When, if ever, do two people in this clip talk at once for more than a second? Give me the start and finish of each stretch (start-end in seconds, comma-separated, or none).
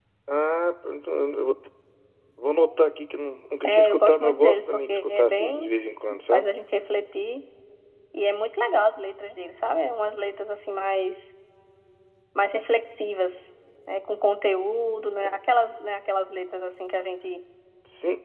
3.6-5.7